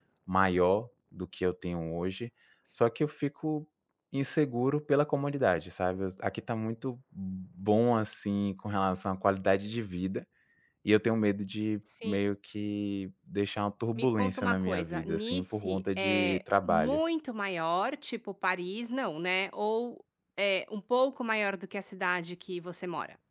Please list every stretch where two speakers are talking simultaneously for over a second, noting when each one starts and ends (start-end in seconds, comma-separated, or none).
13.9-17.0